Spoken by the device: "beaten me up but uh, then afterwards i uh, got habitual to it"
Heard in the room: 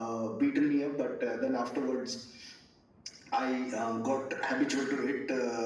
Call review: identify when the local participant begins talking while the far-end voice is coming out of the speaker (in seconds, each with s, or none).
none